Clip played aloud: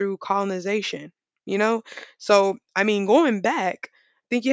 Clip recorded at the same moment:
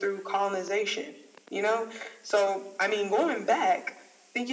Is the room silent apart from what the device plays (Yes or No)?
Yes